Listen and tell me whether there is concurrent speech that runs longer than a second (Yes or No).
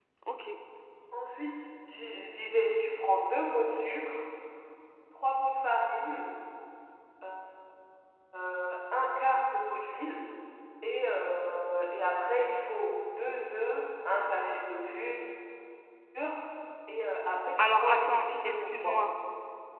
Yes